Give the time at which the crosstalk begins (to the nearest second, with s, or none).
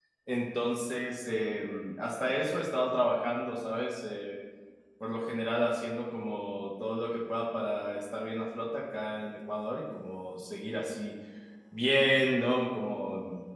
none